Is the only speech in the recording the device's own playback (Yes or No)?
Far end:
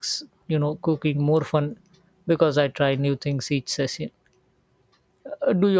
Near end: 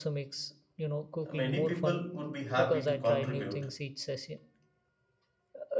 No